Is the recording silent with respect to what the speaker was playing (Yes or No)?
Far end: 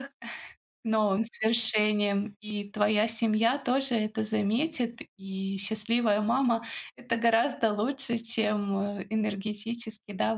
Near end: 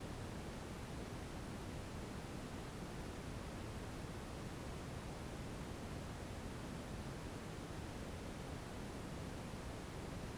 Yes